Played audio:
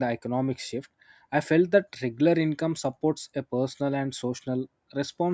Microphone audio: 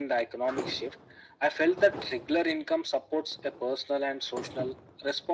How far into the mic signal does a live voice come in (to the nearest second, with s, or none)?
none